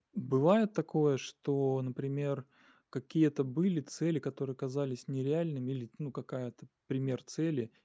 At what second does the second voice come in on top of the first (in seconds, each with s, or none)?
none